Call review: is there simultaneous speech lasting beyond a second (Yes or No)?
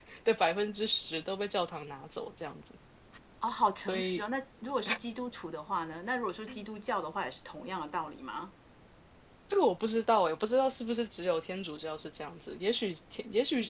No